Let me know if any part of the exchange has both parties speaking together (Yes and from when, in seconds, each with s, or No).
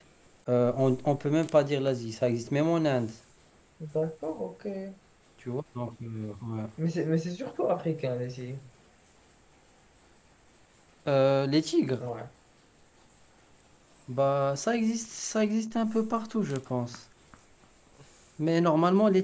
No